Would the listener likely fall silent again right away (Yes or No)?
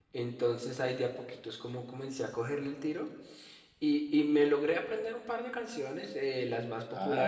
Yes